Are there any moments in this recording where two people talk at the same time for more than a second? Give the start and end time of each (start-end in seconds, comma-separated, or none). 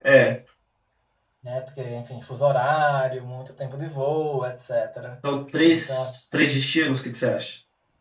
none